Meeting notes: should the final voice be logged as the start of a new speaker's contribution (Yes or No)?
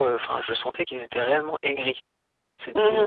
Yes